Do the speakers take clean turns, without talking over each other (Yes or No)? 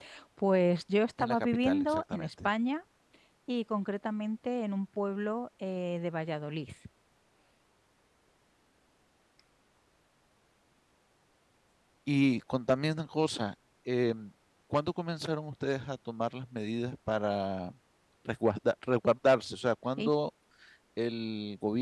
No